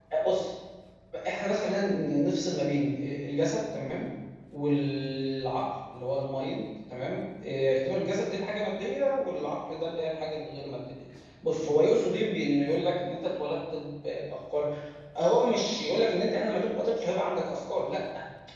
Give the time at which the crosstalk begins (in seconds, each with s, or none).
none